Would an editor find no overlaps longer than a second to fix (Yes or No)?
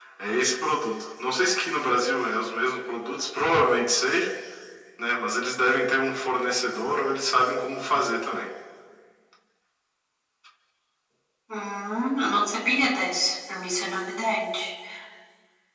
Yes